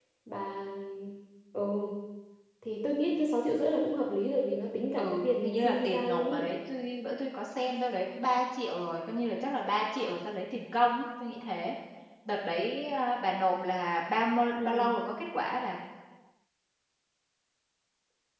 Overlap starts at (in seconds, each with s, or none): 5.0 s